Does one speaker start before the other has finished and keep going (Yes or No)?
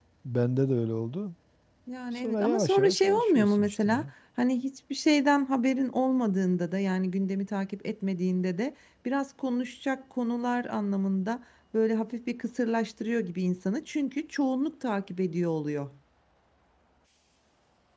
Yes